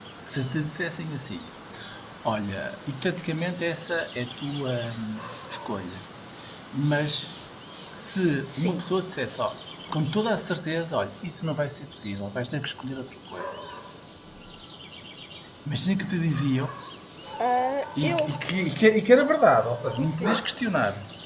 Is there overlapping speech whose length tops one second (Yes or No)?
No